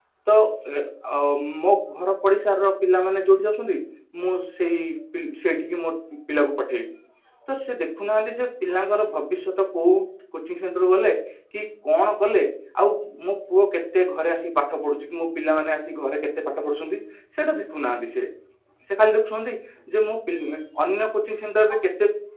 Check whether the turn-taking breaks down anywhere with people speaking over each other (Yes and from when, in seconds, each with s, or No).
No